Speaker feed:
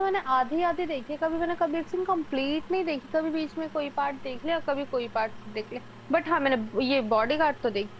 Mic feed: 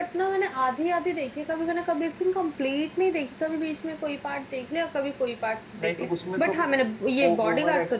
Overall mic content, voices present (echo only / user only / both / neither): both